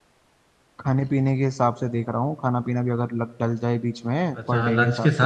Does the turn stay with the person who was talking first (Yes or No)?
No